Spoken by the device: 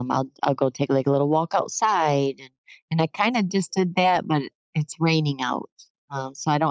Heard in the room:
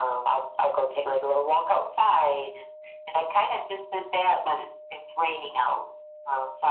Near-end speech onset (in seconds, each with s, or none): none